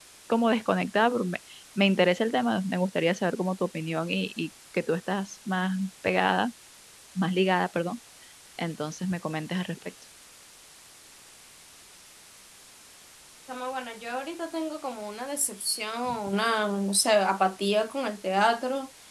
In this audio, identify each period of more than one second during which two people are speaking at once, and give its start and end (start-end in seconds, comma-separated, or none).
none